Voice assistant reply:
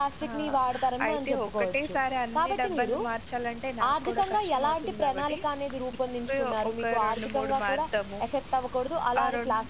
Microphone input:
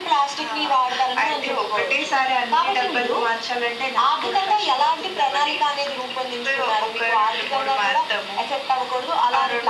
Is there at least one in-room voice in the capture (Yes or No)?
No